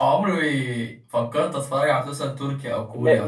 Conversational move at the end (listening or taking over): taking over